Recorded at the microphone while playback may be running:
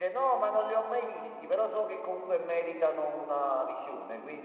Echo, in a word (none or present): none